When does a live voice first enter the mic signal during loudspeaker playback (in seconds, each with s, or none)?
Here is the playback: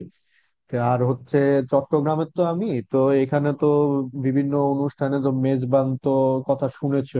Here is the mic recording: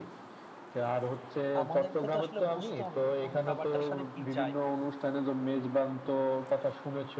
1.6 s